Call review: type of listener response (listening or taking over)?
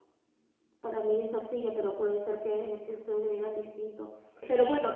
listening